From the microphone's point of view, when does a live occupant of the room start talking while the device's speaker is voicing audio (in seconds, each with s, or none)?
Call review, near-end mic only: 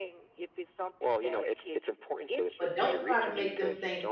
2.6 s